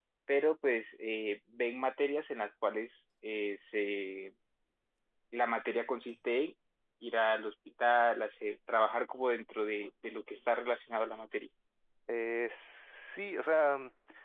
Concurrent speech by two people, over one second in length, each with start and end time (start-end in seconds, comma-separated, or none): none